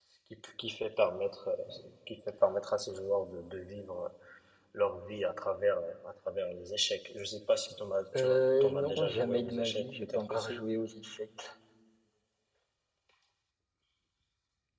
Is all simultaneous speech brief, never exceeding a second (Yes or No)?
No